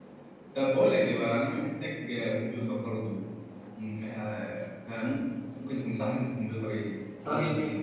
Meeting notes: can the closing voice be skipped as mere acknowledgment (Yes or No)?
No